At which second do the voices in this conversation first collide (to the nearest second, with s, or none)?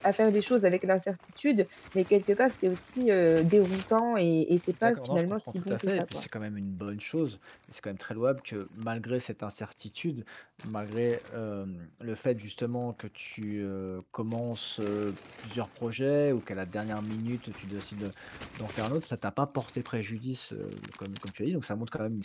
5 s